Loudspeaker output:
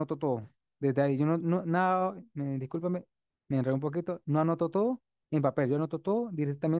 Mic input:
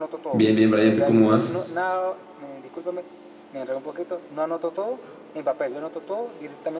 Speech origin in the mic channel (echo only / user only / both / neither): both